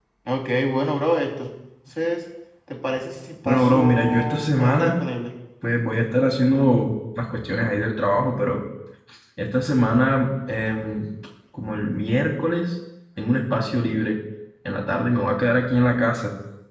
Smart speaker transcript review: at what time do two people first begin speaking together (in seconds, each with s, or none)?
3.5 s